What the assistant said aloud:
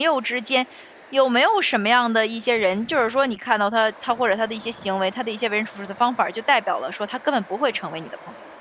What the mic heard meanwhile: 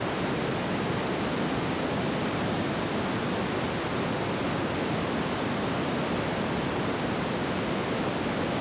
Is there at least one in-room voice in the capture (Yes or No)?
No